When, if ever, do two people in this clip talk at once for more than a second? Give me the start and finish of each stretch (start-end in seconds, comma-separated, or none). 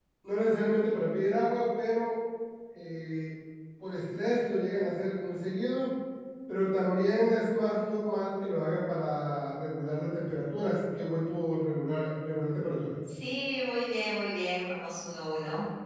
none